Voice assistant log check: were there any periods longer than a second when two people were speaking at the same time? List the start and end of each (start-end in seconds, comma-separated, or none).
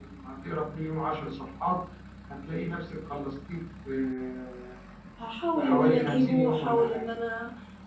5.6-7.1